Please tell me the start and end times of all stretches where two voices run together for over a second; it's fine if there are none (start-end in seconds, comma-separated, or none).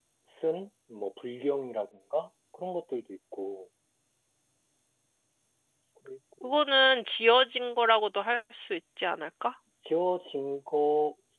none